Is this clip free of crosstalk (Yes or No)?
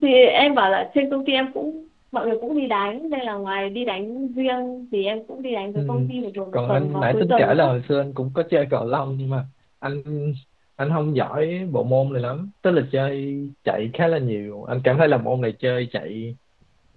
No